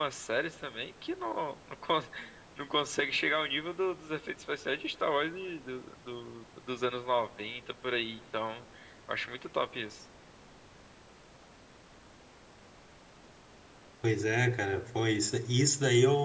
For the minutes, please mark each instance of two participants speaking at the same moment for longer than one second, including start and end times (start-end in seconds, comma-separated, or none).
none